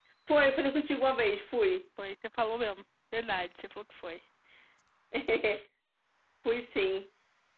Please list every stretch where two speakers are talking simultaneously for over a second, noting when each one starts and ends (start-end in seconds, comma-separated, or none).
none